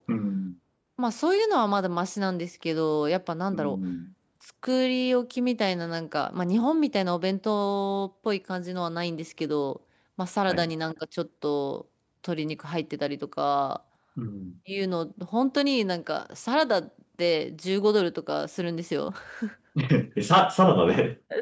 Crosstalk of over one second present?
No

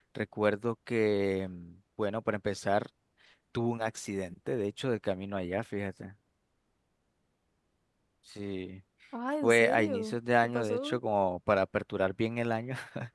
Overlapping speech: Yes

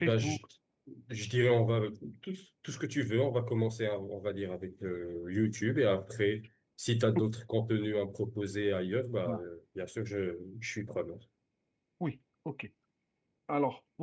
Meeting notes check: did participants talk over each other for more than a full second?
No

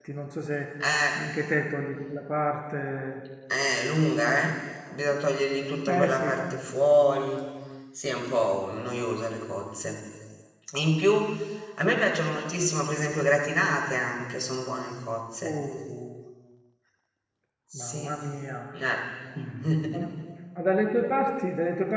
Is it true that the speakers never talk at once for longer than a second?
Yes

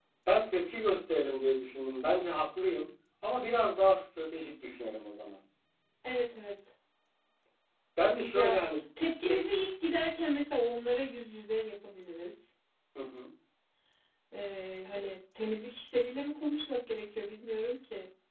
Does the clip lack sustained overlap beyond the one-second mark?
Yes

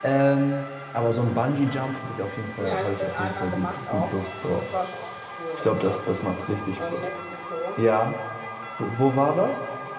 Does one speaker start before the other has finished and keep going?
Yes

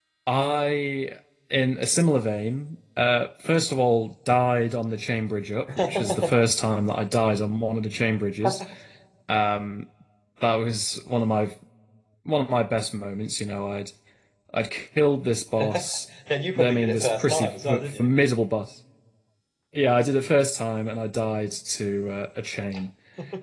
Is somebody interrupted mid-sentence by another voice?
Yes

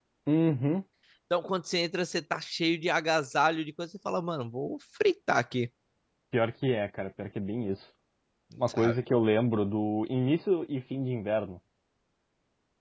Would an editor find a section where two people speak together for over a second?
No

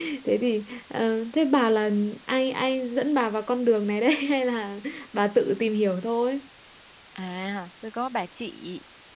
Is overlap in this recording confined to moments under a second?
Yes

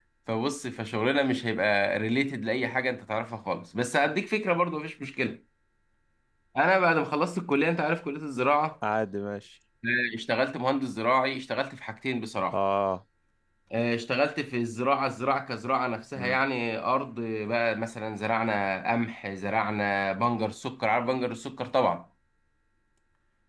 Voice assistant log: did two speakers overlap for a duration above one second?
No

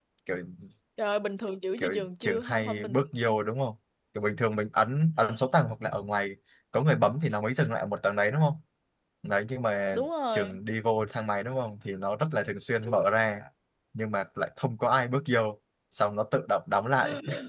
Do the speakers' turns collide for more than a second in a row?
Yes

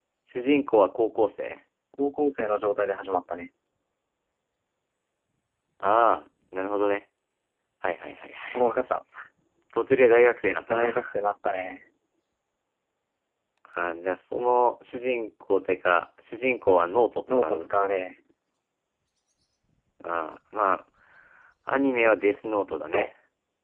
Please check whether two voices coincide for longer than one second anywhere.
No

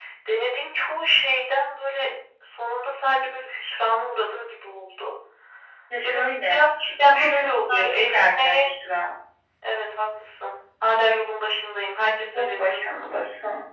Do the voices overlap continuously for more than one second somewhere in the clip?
Yes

